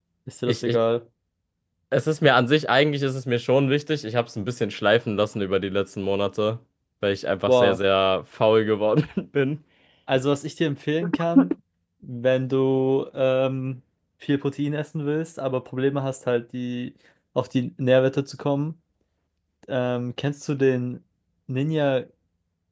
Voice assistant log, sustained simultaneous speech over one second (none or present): none